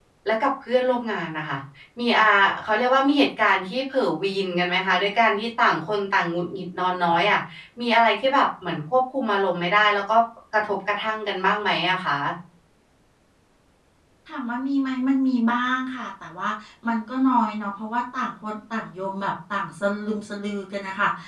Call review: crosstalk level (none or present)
none